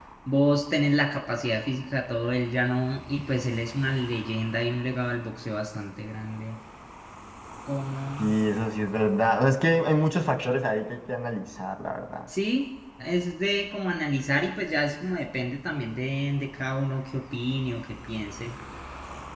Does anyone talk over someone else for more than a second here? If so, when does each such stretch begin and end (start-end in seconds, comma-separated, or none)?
none